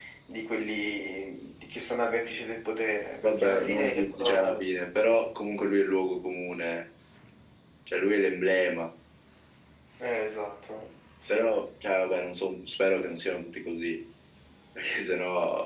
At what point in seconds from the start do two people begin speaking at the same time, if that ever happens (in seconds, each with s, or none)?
3.2 s